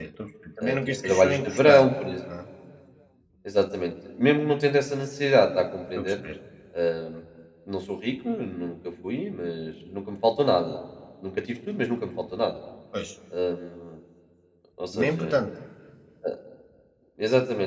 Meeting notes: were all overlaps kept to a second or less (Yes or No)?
No